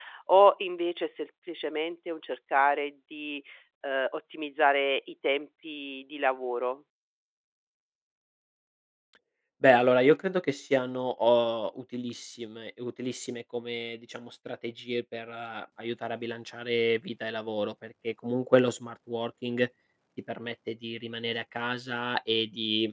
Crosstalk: none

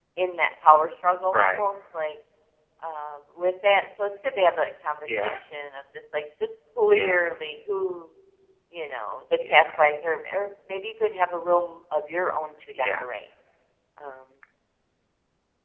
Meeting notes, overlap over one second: none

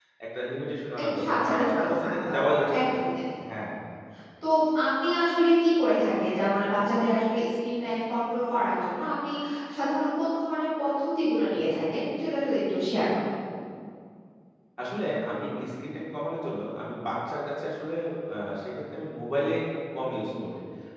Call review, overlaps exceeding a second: present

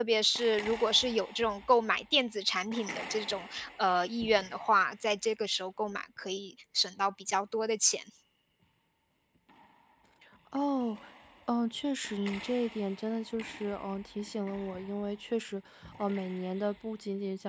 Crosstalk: none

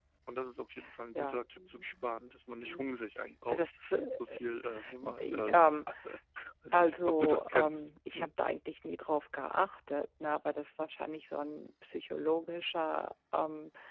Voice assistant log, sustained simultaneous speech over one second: present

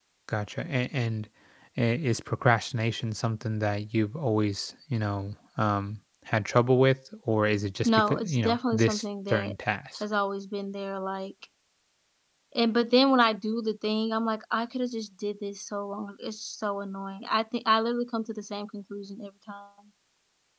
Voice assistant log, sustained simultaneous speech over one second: present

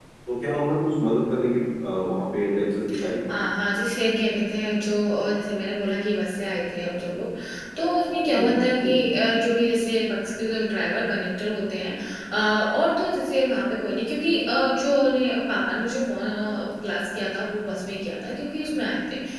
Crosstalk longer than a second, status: none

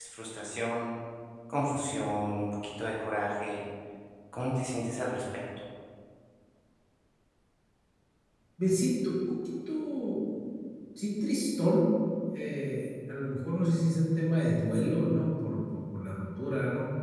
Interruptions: none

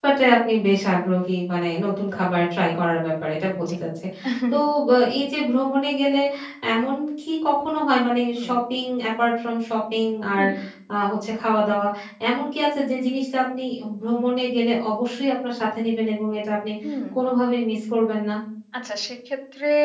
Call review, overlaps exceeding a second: none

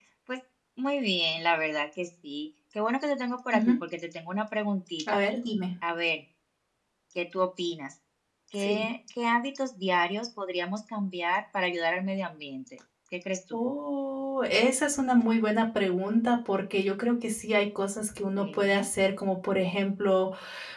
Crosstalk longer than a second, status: none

